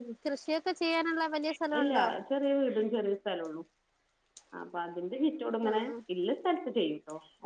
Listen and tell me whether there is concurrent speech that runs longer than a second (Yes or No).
No